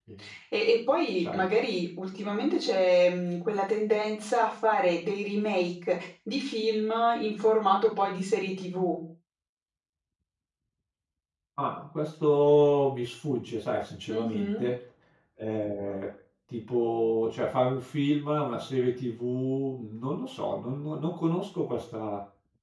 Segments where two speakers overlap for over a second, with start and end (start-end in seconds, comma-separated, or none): none